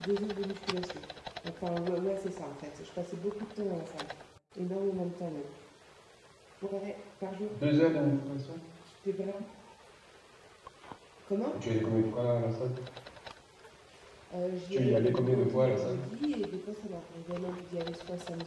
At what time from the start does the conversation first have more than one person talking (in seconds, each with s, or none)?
14.7 s